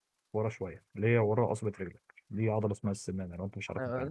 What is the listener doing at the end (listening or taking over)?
taking over